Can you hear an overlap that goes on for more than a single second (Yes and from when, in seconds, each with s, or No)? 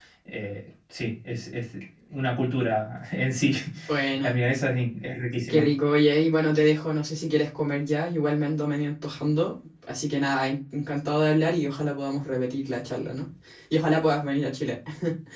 No